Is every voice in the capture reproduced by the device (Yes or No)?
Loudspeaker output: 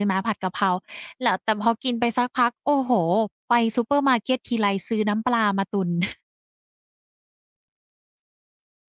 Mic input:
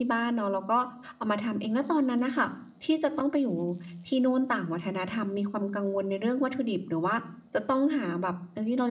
No